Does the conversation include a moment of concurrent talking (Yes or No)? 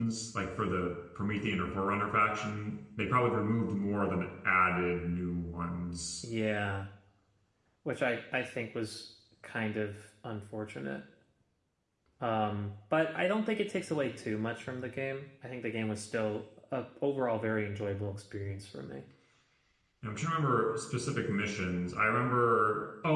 No